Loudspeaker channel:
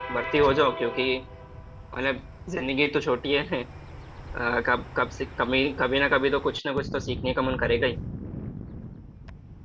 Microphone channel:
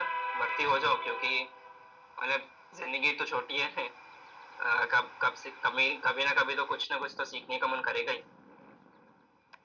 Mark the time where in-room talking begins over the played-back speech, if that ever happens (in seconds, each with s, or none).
none